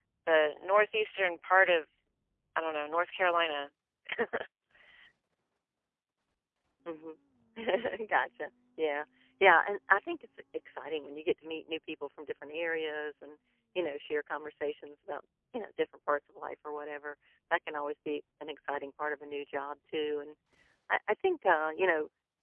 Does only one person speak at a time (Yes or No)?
Yes